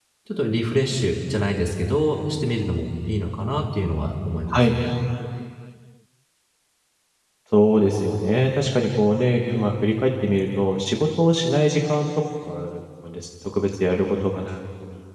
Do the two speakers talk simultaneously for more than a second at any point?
No

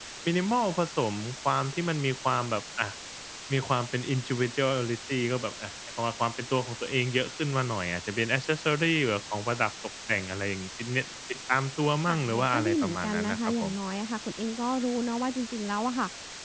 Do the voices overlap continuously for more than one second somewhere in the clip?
Yes, from 12.1 s

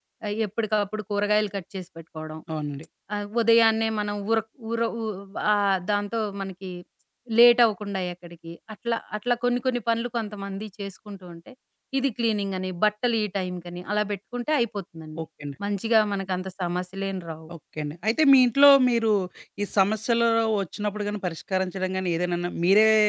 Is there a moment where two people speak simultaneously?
No

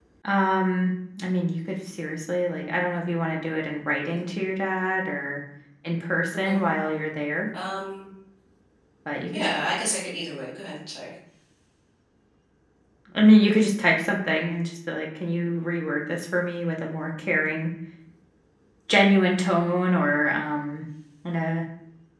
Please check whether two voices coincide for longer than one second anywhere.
No

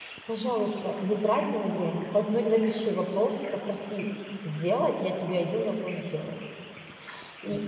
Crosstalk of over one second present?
No

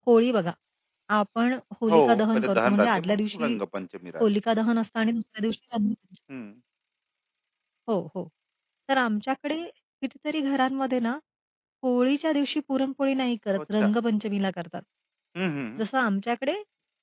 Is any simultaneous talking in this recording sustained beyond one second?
Yes, from 1.9 s

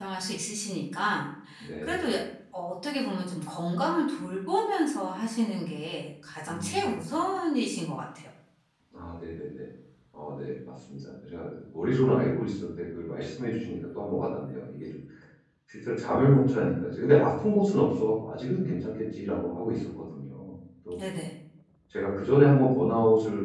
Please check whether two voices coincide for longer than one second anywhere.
No

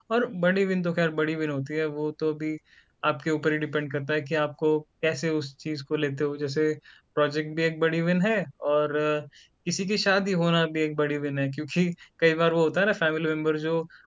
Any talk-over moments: No

